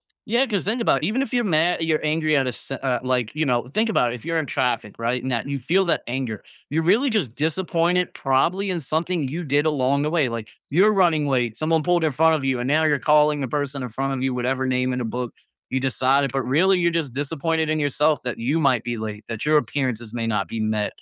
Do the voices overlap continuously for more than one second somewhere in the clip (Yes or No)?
No